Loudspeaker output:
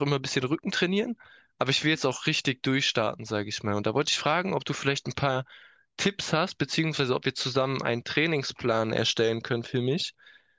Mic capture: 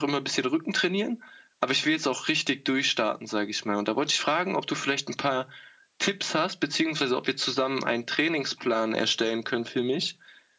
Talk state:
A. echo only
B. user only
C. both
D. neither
A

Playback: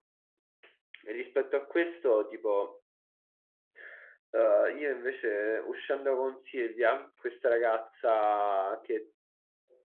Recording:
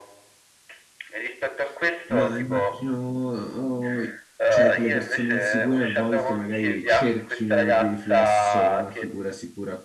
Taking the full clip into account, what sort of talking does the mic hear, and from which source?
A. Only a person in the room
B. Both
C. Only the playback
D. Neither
B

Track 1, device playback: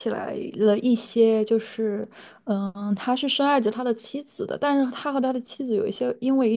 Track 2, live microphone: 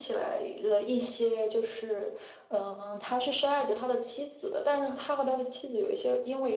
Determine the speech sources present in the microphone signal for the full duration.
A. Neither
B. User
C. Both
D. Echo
D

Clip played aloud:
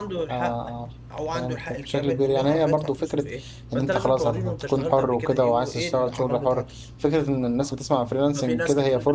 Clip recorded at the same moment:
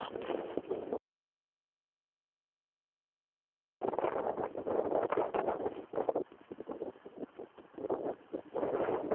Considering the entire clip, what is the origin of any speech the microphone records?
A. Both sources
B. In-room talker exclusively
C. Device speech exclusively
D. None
D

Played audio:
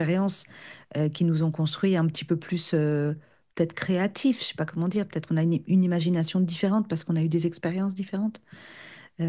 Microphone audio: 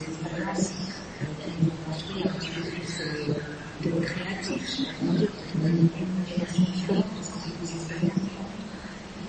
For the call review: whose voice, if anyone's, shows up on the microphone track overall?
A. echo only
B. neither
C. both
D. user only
A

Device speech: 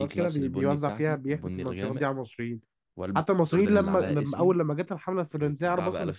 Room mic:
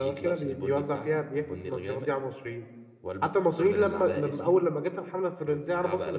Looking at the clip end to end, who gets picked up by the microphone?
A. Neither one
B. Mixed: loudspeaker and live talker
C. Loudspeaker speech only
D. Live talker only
C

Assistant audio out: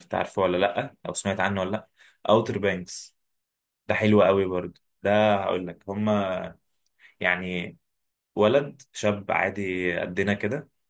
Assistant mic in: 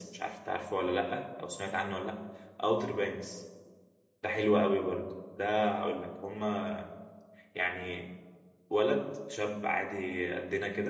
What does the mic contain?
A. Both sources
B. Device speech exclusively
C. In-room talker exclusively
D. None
B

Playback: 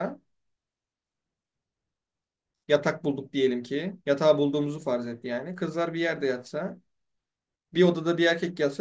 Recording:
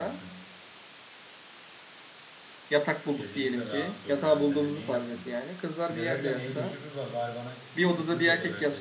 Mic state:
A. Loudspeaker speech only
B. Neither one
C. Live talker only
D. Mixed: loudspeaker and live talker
D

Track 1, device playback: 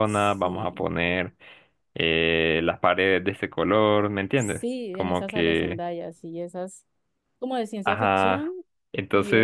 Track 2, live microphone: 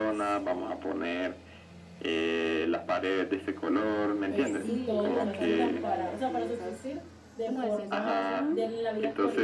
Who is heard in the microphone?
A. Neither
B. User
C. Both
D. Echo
C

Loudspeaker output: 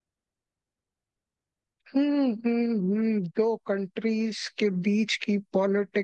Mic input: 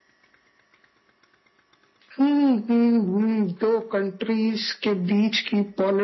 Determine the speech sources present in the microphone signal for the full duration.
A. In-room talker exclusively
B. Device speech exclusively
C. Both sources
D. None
B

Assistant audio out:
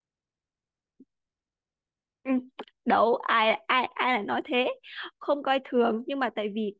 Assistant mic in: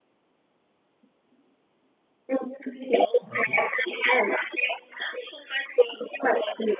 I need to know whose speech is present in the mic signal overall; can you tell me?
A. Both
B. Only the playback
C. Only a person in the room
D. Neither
A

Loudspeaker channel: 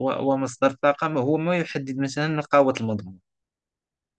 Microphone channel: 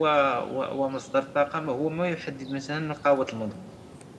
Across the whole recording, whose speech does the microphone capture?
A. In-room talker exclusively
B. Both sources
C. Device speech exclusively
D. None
C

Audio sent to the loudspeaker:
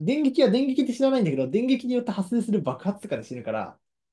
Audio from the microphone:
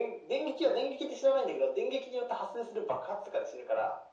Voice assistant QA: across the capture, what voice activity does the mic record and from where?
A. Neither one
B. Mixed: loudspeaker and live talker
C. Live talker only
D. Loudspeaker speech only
D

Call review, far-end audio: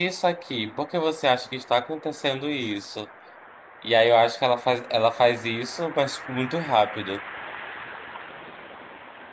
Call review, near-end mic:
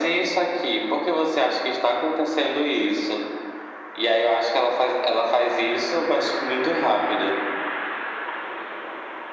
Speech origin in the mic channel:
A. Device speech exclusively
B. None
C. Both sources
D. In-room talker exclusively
A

